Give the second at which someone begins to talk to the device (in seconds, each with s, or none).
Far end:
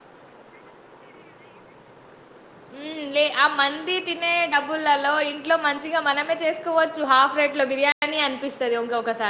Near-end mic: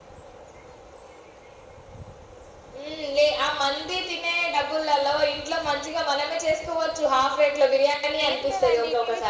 8.3 s